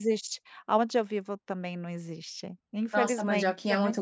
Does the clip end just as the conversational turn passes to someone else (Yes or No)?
Yes